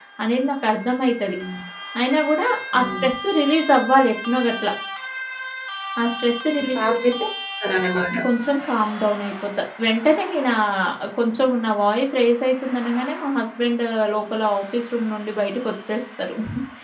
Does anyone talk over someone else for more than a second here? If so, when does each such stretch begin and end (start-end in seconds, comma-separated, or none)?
none